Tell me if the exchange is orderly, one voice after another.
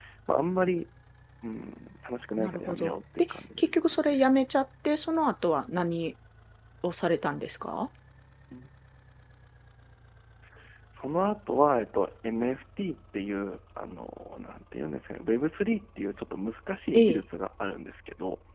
No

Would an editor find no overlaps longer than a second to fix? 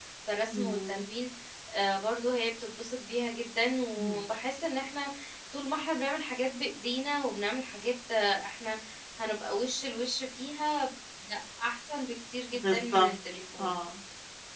Yes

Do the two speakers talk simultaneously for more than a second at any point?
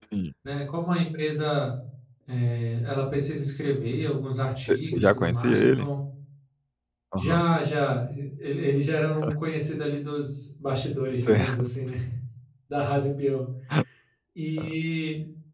Yes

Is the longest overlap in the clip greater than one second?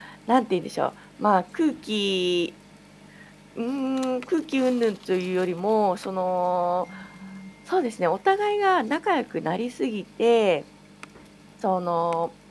No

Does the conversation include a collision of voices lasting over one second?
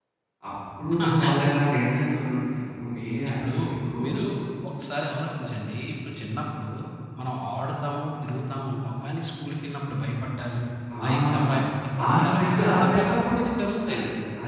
Yes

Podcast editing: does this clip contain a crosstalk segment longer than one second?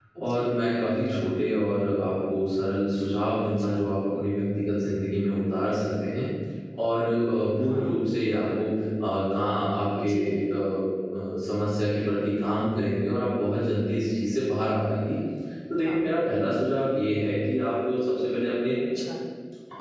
No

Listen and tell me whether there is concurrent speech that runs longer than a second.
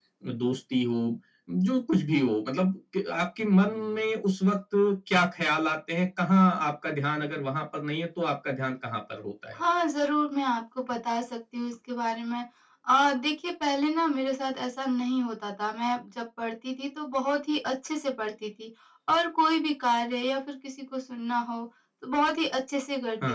No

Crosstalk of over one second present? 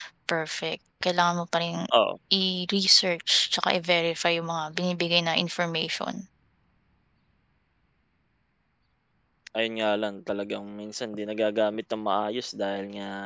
No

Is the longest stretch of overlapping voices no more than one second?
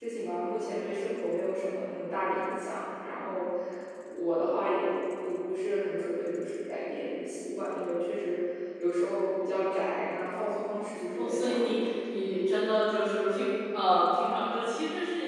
No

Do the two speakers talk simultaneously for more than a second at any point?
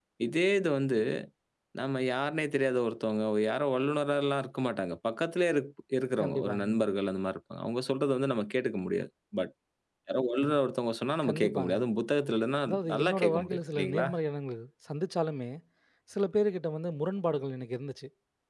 Yes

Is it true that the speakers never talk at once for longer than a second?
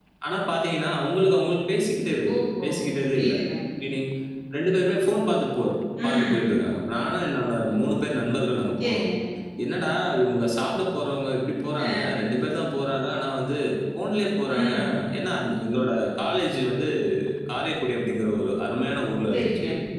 Yes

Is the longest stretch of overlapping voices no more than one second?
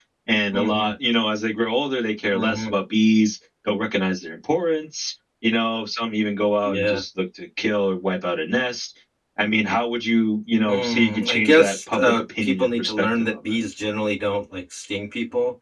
No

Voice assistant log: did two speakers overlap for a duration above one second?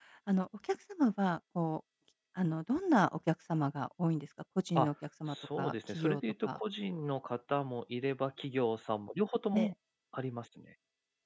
Yes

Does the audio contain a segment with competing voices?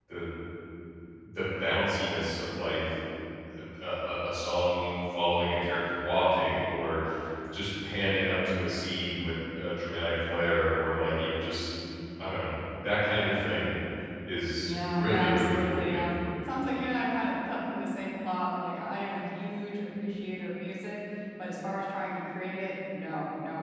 Yes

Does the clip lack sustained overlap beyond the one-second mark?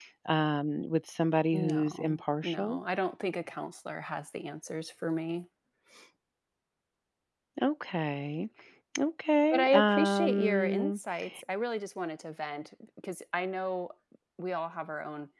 No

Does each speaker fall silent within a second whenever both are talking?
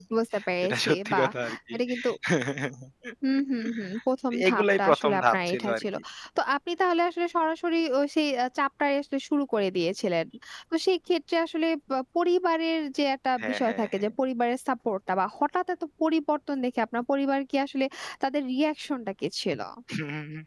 No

